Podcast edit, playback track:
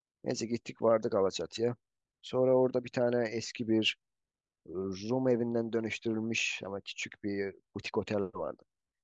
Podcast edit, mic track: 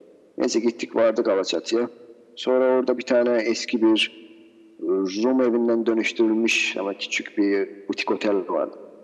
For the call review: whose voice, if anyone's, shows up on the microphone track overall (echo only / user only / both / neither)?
echo only